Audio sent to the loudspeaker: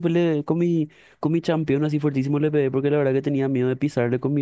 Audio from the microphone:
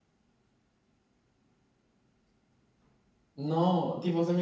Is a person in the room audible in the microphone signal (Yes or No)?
Yes